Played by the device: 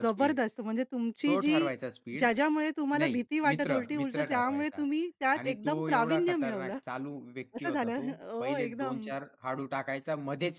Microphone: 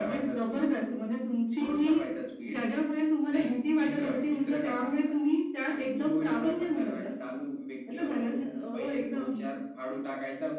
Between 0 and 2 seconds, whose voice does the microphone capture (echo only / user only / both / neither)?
echo only